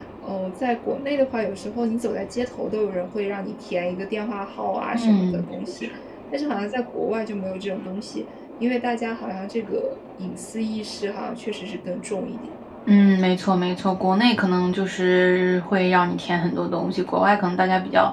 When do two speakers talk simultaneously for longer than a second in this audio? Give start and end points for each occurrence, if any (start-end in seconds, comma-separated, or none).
none